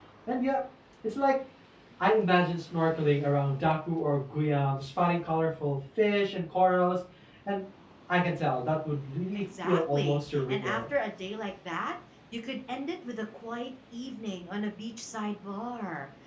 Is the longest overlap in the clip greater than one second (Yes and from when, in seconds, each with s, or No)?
Yes, from 9.3 s